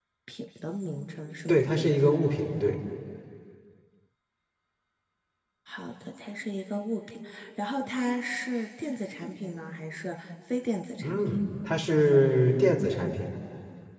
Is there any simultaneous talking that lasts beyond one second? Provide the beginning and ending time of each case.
none

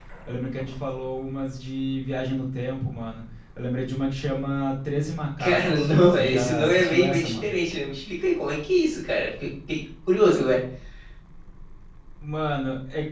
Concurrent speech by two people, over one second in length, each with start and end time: 5.4-7.5

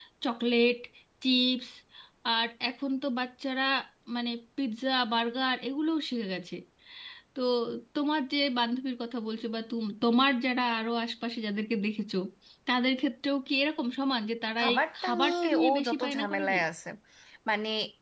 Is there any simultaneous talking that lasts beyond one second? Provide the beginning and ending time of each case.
14.6-16.6

